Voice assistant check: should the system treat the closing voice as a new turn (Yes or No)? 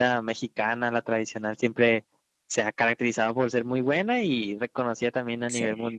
No